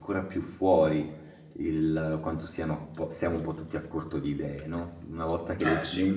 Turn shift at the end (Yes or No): No